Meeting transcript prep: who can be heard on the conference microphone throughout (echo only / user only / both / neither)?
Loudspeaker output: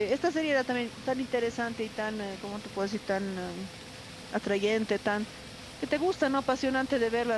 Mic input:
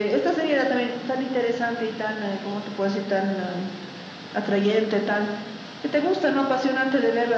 echo only